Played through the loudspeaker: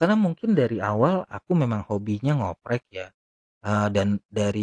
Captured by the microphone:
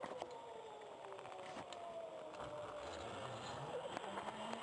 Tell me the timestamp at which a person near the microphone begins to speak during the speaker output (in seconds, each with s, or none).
none